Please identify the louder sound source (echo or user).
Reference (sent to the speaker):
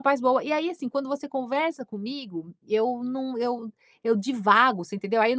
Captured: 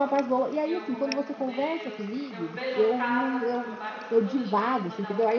echo